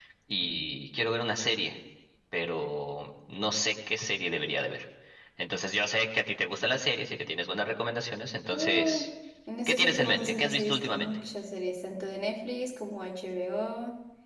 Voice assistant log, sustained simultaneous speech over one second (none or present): present